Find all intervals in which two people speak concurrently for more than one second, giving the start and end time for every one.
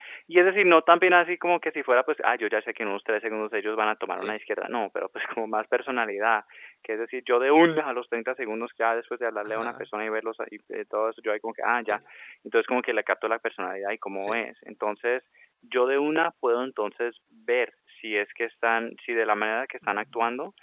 none

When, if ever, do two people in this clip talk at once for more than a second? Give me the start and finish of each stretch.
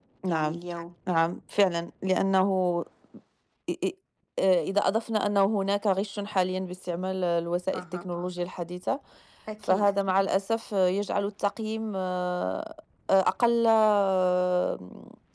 none

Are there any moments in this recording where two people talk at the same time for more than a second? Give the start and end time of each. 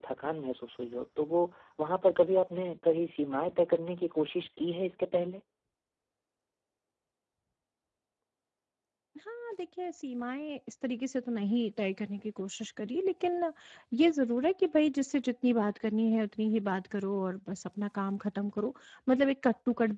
none

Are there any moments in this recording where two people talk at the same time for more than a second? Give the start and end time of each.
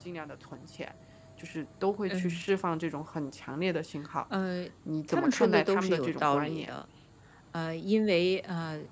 5.1-6.7

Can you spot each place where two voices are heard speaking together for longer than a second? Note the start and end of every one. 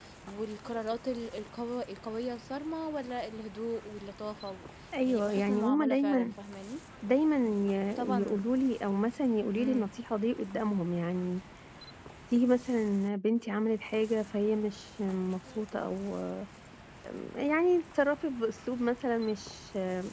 5.1-6.3

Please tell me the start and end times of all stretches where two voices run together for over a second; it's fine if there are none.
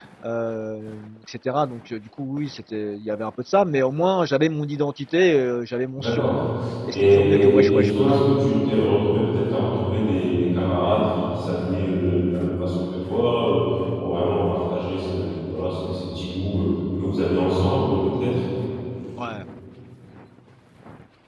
6.9-8.1

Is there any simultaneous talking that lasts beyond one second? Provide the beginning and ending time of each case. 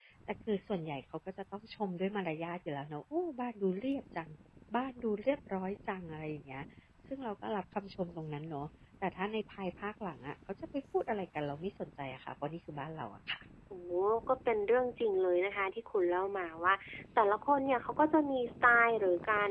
none

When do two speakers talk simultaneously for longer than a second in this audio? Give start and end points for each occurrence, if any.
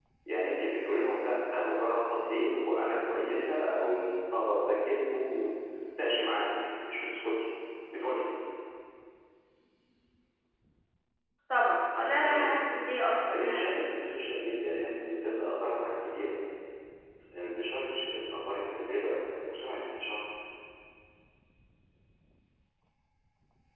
12.2-13.7

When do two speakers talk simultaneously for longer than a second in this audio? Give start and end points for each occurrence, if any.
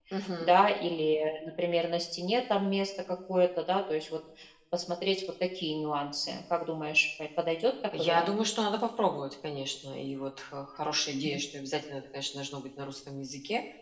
none

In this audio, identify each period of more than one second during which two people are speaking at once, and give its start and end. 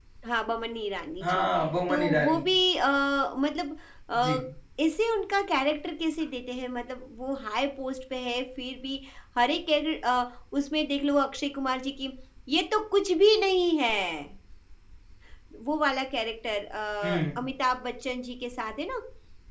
none

